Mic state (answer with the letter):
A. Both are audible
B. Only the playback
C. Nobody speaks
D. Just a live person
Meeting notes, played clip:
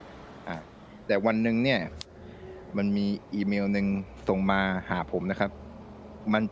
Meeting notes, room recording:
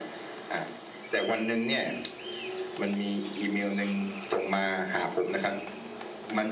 B